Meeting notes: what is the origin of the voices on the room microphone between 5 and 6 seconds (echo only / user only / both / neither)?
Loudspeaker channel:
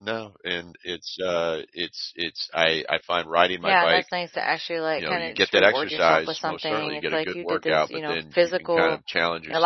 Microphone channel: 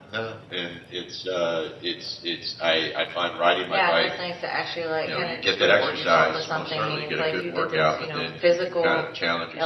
echo only